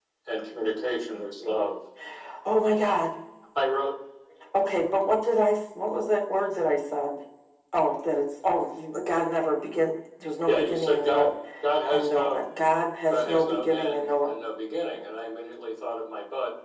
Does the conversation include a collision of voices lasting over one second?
Yes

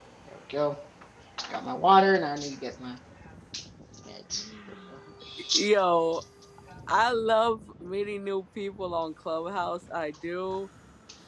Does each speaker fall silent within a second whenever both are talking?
Yes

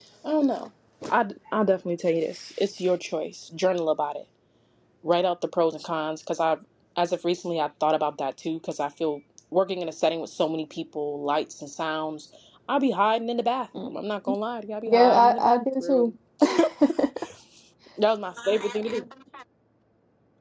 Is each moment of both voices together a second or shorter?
No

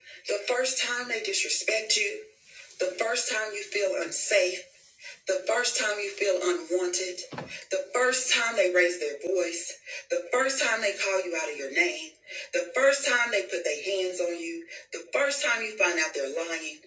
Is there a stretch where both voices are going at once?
No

